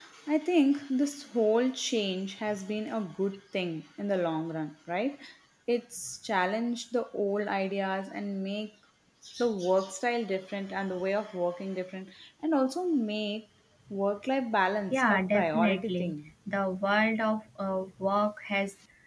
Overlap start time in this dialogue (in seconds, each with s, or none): 14.9 s